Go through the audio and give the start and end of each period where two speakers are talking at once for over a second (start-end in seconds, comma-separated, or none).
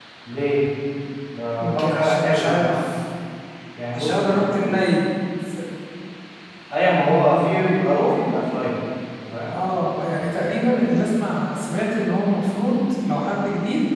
1.6-2.8